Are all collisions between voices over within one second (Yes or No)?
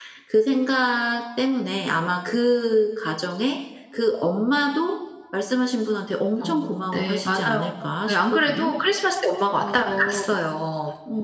No